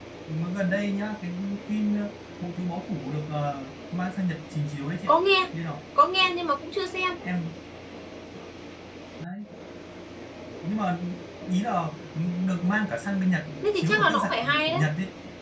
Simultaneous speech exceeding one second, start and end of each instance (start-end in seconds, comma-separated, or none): 13.6-14.9